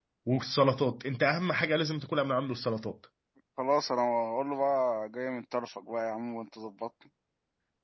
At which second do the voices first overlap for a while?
none

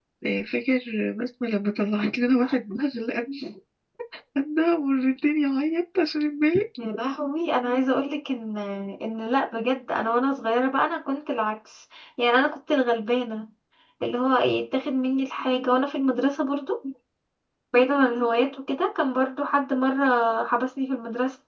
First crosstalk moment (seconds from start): none

